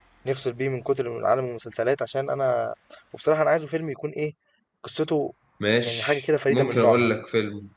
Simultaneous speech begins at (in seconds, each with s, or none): 5.8 s